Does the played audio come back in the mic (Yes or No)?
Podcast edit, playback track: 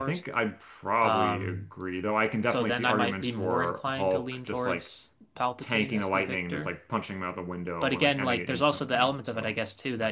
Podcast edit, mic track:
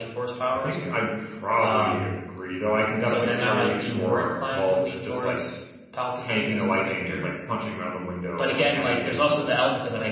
Yes